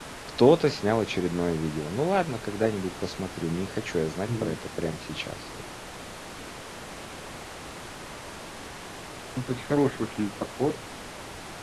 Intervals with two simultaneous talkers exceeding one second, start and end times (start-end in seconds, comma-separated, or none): none